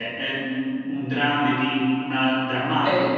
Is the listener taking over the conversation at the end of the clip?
Yes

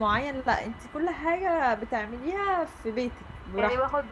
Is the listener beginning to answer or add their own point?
Yes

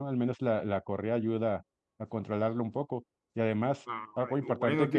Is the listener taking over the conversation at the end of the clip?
Yes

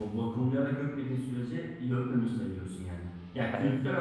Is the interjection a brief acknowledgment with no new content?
Yes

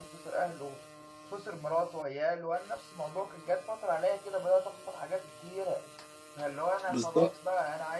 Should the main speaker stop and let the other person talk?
No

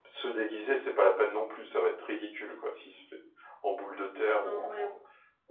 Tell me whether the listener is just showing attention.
No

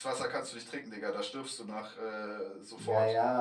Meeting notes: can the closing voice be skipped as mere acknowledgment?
No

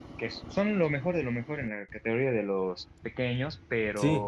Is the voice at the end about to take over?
Yes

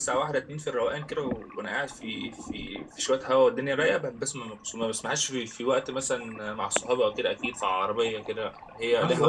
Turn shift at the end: Yes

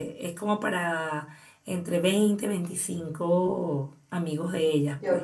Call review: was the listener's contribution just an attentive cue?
No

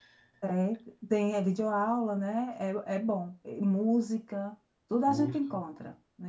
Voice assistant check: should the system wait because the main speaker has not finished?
Yes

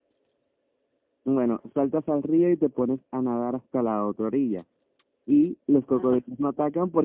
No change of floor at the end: Yes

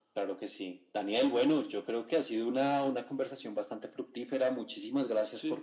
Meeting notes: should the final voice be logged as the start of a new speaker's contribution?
No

